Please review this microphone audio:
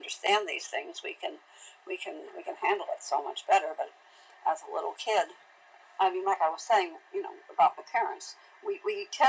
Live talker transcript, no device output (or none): none